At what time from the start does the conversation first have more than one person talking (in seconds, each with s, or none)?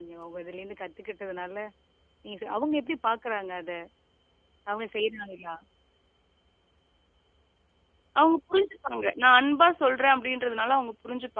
none